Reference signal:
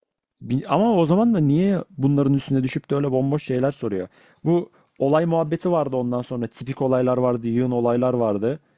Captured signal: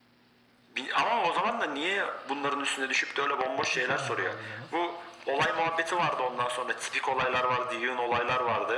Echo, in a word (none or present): present